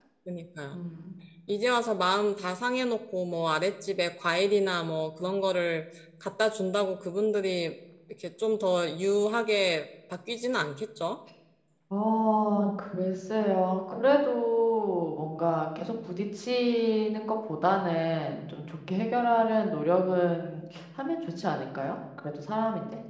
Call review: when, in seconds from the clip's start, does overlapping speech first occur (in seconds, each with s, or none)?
none